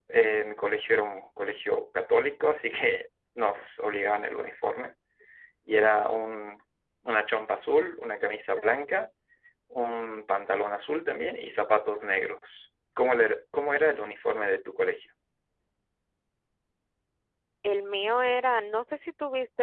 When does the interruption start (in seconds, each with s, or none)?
none